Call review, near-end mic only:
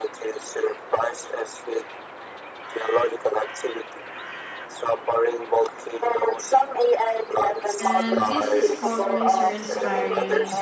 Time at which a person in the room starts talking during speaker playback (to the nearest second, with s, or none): 8 s